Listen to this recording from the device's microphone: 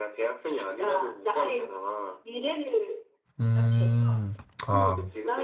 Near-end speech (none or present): present